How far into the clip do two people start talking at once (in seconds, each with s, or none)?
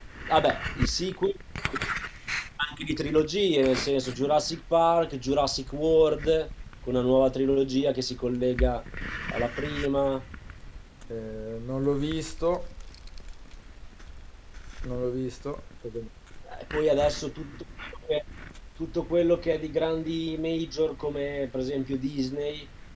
none